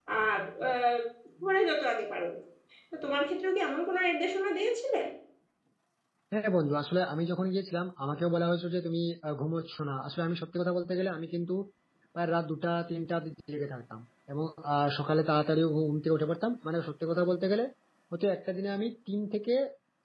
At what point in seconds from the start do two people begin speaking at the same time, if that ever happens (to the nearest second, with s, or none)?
none